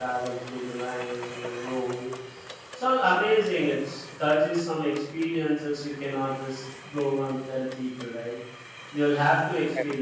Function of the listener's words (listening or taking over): listening